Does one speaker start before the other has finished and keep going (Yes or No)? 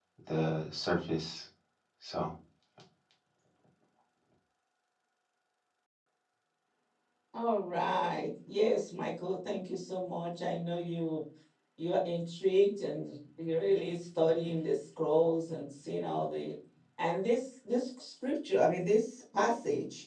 No